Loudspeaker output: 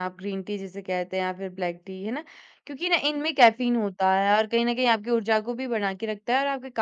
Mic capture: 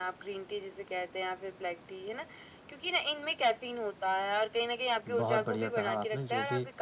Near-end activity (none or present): present